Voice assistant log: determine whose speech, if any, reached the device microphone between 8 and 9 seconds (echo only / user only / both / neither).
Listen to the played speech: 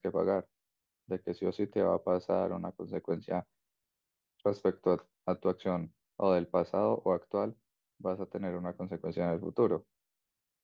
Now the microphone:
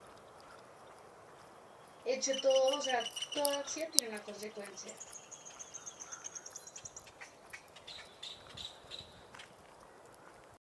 neither